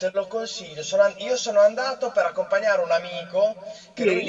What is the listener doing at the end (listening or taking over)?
listening